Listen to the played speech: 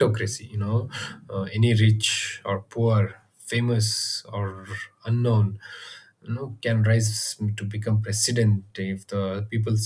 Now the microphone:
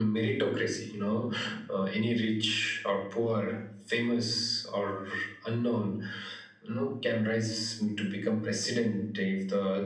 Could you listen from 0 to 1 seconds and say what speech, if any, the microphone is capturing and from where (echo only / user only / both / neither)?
echo only